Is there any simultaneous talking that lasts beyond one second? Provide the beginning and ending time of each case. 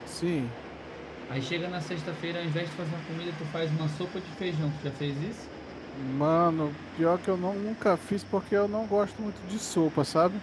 none

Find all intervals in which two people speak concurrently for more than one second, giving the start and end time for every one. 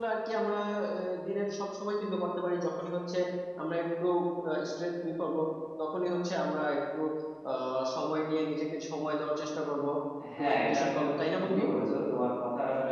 10.4-11.6

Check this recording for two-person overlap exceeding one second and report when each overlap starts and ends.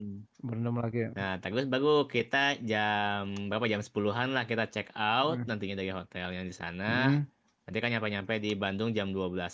none

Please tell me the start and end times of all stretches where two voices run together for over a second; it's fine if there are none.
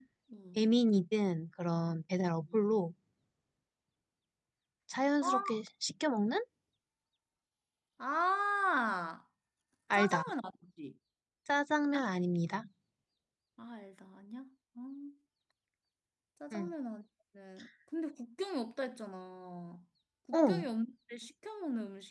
none

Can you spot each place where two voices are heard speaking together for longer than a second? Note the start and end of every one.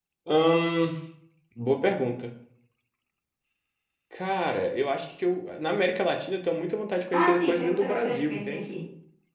7.1-8.6

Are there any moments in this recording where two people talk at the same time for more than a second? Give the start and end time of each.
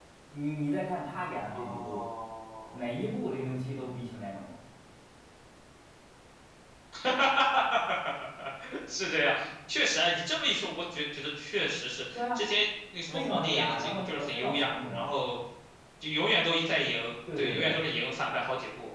13.1-15.1

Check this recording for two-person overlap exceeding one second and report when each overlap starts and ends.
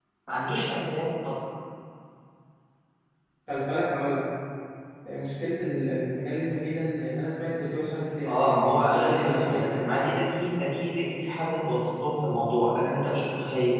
8.2-9.8

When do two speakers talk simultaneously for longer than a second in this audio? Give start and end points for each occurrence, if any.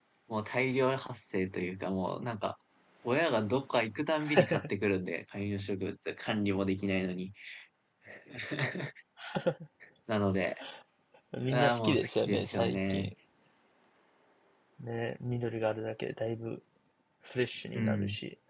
11.5-13.1

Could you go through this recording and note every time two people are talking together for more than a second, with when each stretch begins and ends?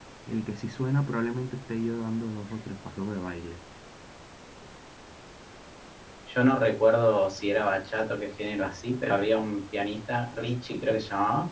none

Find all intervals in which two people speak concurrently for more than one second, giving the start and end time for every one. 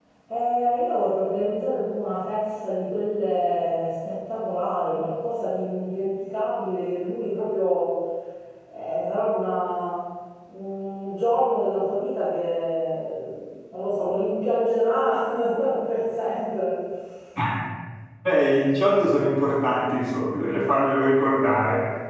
none

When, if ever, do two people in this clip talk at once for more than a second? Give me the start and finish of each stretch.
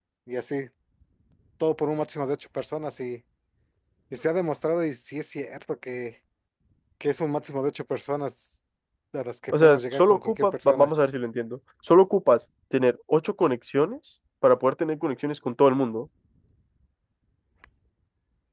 9.5-10.9

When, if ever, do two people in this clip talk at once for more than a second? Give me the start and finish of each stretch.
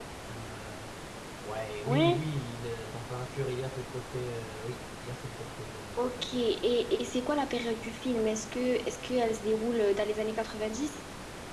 none

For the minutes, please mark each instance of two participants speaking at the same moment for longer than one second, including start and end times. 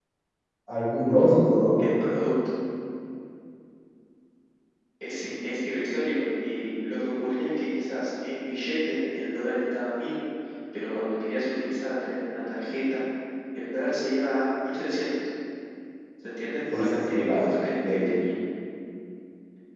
16.7-18.1

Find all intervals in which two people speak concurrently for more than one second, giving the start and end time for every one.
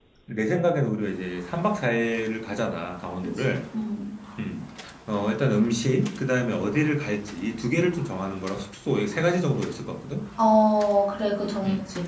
none

